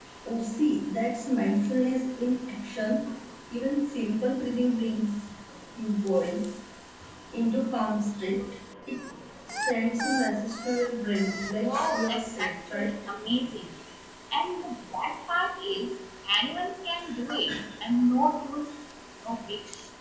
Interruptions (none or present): present